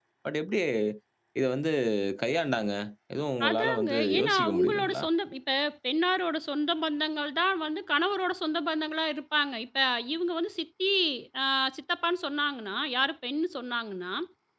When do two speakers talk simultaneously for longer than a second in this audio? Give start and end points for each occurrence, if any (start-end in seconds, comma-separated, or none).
3.5-5.0